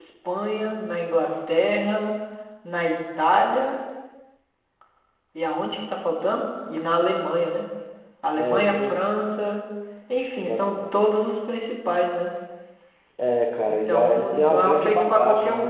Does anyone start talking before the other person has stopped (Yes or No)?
Yes